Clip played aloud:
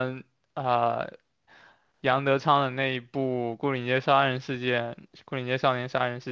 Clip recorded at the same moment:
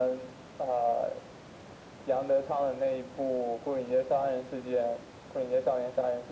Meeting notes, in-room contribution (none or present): none